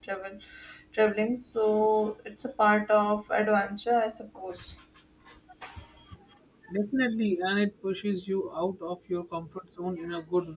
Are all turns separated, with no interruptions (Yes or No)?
Yes